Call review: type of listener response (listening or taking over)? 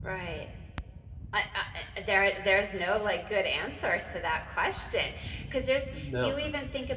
listening